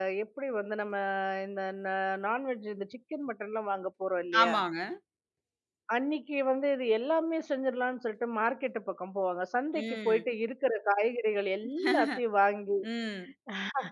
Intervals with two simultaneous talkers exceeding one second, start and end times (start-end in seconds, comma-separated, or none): none